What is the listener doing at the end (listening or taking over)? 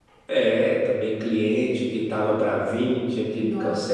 listening